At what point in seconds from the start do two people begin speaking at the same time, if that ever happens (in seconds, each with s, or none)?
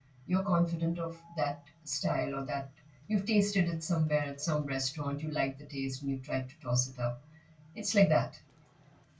none